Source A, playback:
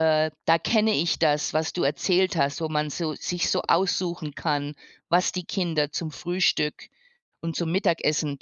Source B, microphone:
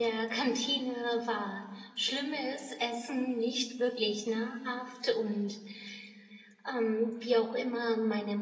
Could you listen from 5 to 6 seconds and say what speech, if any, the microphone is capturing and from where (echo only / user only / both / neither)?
user only